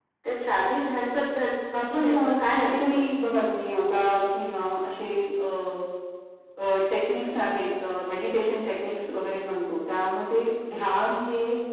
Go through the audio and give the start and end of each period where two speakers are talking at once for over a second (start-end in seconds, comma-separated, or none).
1.8-3.1